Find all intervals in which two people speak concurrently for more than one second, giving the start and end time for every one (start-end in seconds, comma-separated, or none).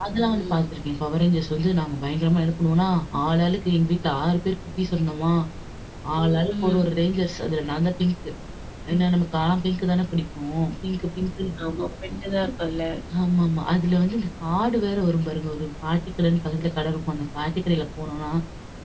none